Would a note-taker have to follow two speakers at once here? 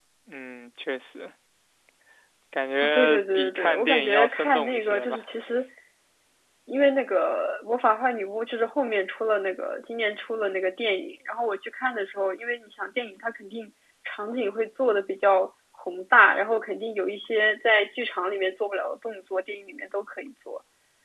Yes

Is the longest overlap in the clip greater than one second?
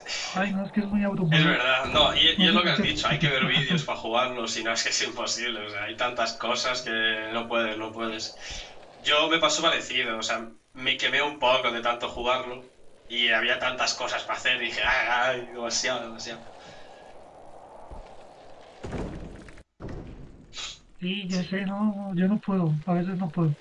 Yes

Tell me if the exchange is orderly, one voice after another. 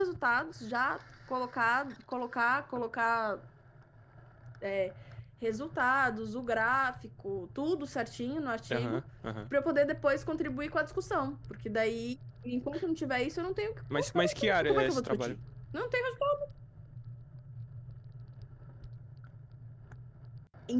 No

